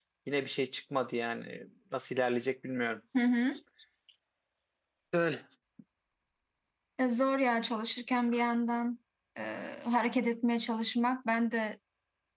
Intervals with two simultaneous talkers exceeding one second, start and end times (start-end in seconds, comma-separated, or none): none